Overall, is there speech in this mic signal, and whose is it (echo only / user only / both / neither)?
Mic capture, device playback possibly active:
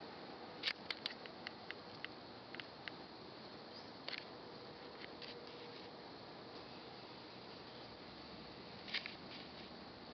neither